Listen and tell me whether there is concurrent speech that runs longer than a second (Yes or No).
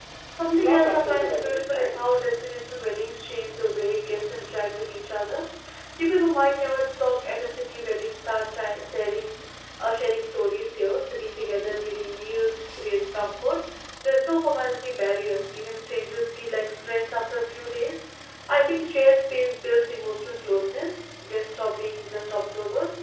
Yes